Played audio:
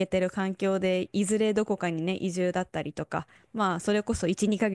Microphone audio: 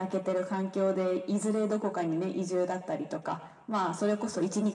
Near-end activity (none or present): none